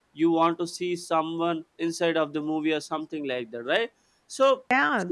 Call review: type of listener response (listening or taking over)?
taking over